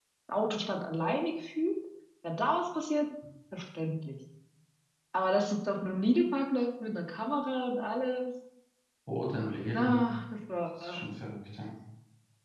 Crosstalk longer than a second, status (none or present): none